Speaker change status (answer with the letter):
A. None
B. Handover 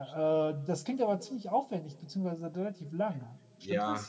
B